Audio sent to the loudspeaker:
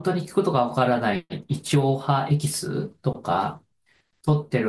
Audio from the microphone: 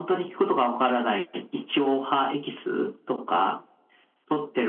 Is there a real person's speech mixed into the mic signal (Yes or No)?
No